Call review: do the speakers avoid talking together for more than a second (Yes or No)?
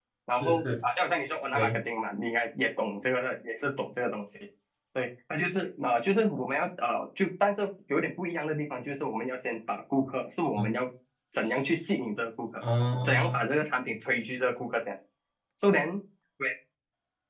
Yes